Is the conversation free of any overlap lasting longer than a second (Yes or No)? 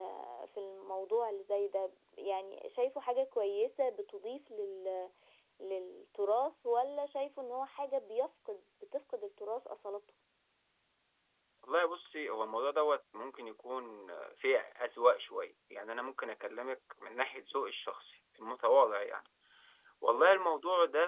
Yes